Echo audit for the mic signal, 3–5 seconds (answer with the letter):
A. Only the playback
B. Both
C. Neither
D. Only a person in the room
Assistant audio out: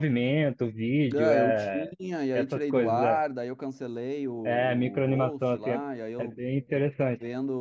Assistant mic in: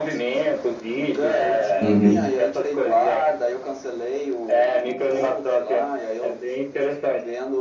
A